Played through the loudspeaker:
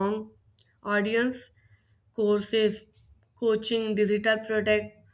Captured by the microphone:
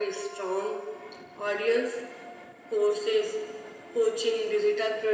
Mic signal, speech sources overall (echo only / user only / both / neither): echo only